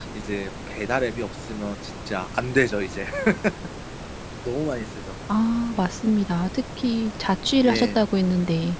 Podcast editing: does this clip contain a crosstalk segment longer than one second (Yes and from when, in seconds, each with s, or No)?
No